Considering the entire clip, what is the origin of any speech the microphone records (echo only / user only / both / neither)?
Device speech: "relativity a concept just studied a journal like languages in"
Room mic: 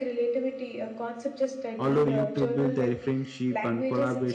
both